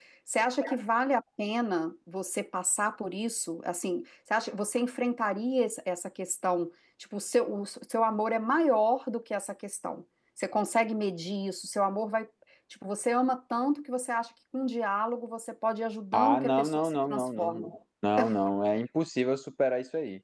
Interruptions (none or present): present